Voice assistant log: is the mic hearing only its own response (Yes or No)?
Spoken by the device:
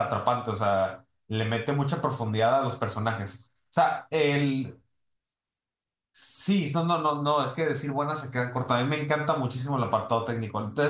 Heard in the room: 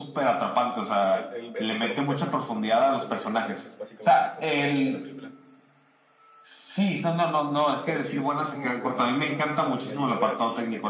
No